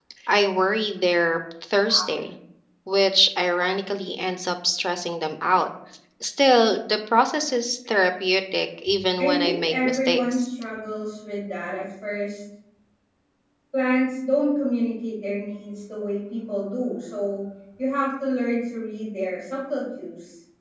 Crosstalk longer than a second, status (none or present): present